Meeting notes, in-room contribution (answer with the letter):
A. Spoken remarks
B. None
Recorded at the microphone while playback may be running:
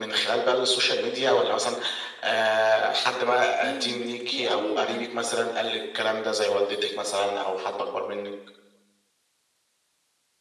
A